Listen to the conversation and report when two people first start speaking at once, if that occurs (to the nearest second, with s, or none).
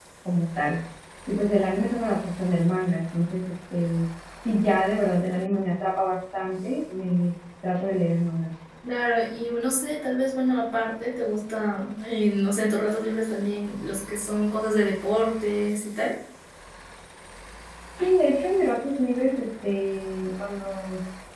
none